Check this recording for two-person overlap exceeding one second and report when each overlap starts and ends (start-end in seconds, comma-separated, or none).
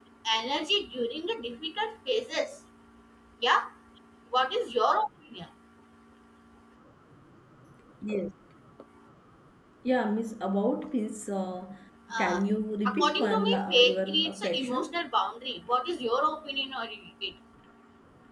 12.8-15.0